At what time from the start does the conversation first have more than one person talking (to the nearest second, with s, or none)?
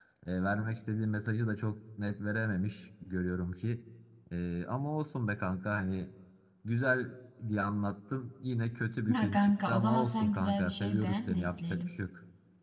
9 s